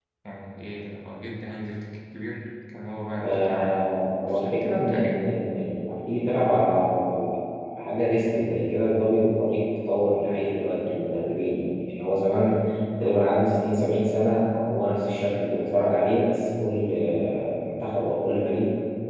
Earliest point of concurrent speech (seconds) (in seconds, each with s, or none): 3.2 s